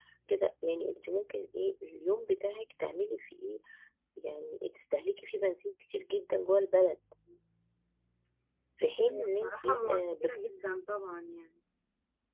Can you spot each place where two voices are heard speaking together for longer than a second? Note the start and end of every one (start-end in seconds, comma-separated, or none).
8.8-10.4